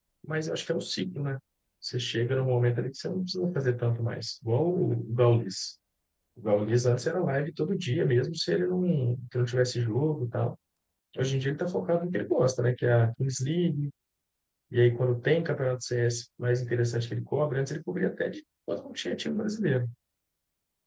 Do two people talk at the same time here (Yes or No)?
No